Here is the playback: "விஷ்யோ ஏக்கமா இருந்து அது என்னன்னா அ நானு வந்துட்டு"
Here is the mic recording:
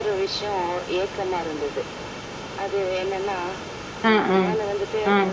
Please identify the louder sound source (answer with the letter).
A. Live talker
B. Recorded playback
A